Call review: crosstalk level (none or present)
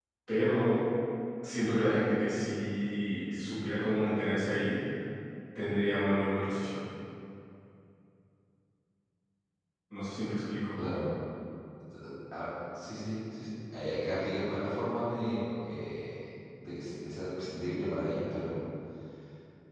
none